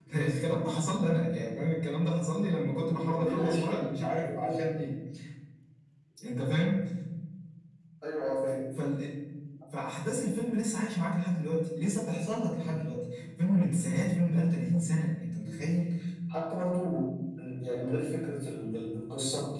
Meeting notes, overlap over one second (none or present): present